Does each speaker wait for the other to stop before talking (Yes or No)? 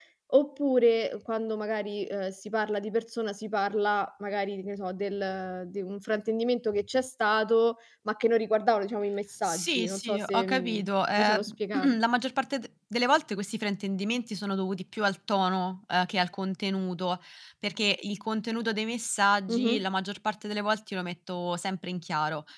No